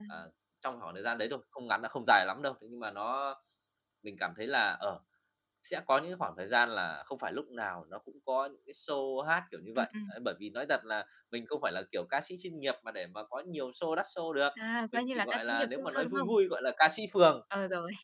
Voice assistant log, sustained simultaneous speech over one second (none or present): present